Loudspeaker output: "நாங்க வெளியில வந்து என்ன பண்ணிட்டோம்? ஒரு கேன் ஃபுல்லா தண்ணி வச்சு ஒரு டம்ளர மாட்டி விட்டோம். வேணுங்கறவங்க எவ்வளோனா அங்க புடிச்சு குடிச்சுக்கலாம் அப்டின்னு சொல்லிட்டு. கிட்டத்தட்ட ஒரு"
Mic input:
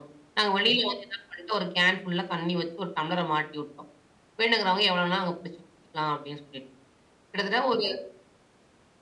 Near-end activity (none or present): none